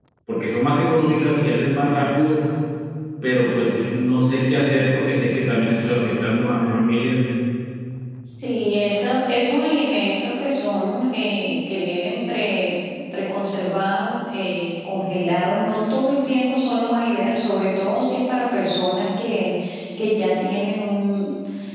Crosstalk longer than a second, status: none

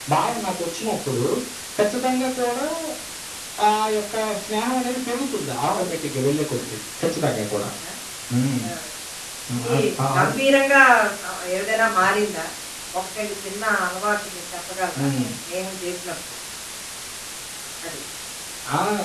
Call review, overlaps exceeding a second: none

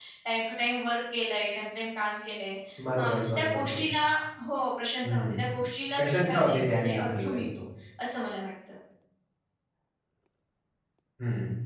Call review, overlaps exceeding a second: present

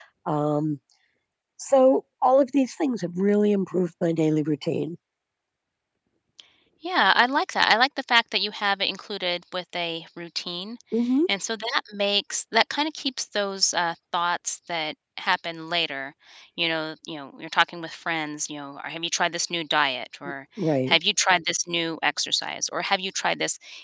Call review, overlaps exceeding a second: none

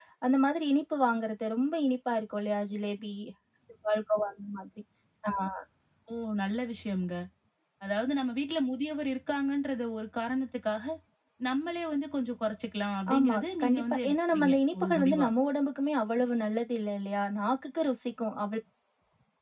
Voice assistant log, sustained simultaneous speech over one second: present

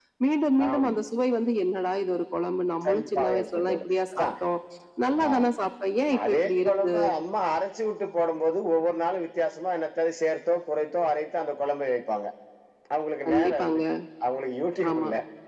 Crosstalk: present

